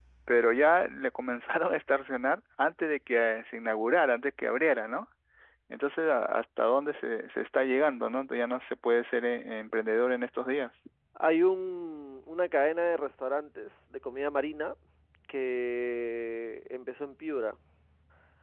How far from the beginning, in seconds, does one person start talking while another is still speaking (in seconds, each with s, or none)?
none